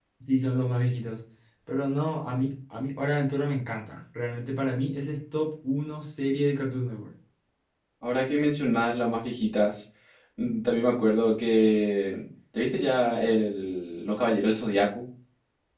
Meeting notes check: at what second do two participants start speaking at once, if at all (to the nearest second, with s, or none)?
none